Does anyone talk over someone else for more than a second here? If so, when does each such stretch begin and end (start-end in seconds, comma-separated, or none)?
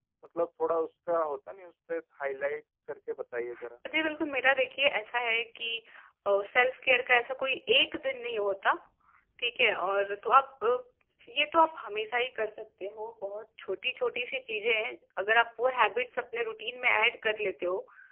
none